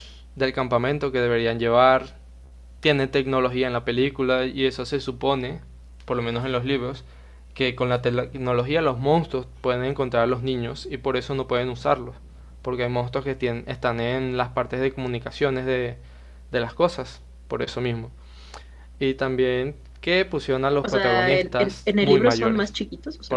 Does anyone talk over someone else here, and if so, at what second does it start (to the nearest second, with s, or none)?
21 s